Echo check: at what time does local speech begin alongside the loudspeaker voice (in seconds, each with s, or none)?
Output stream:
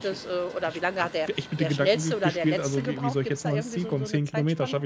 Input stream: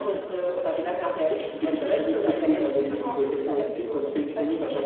none